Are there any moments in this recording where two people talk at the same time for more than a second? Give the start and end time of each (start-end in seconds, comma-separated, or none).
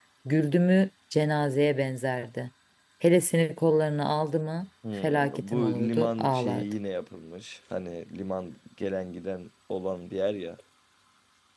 5.0-6.7